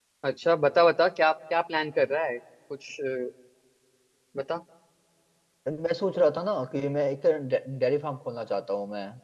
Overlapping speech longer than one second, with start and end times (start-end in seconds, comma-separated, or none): none